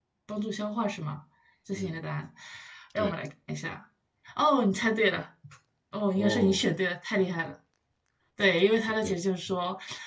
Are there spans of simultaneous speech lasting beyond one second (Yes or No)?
No